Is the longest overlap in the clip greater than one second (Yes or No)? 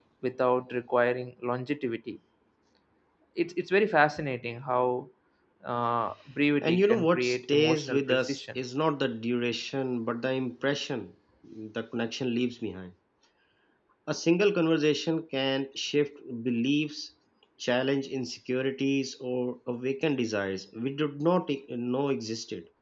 Yes